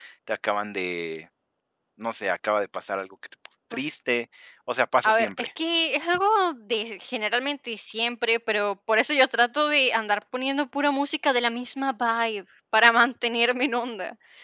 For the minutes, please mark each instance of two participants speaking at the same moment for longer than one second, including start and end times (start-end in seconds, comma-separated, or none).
none